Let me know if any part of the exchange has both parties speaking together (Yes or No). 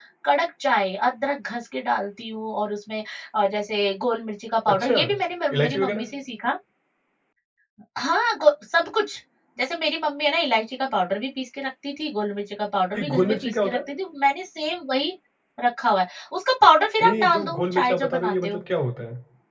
Yes